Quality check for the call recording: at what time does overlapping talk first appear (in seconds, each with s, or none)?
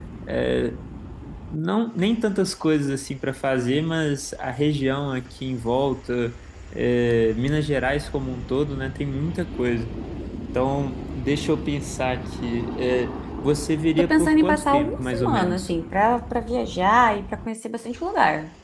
14.0 s